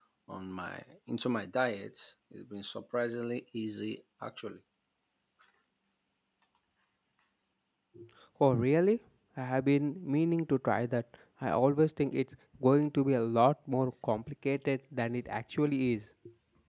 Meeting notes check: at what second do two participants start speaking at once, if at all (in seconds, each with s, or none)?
none